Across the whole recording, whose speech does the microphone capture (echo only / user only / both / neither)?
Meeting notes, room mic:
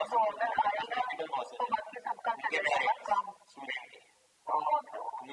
echo only